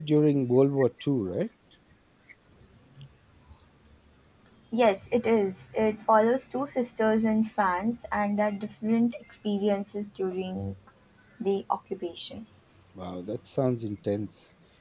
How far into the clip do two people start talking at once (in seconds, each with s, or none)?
none